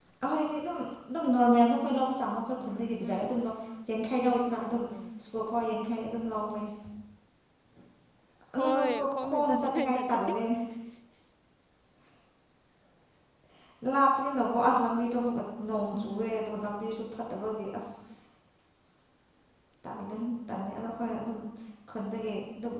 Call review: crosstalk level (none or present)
present